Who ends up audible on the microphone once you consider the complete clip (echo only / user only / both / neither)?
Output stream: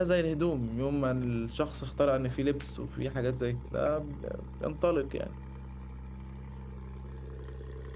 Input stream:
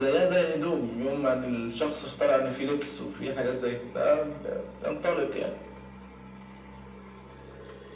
echo only